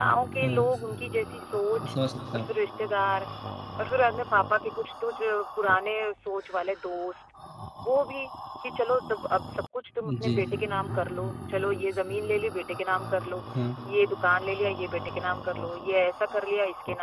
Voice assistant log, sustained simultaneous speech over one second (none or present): none